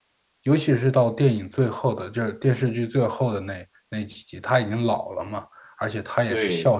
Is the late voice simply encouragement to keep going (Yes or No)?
Yes